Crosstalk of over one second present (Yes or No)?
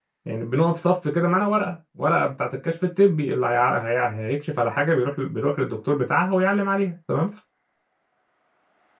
No